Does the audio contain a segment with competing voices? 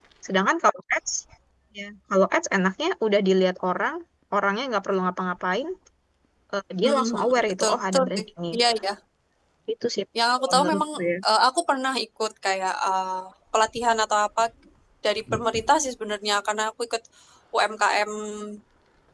Yes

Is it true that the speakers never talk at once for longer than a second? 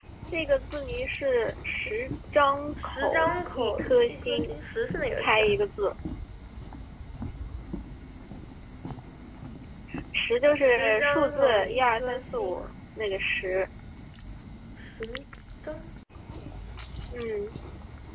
No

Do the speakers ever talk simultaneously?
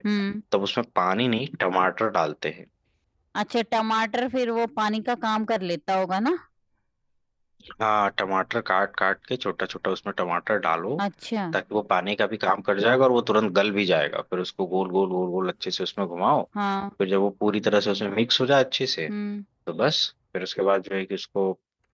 No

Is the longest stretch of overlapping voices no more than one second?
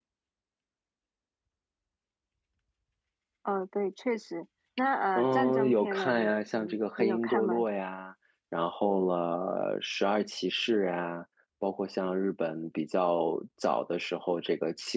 No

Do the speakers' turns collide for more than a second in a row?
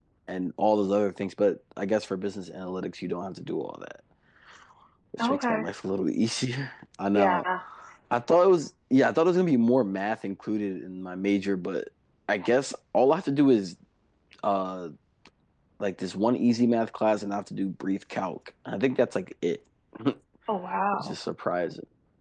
No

